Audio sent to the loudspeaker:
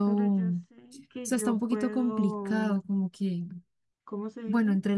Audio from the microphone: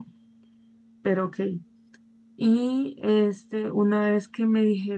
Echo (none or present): none